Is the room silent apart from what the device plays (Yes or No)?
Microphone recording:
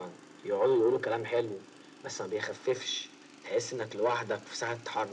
Yes